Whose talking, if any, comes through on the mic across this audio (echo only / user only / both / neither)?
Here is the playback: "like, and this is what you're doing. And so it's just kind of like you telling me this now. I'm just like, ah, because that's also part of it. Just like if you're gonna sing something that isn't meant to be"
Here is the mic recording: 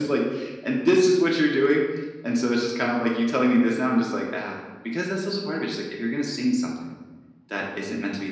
echo only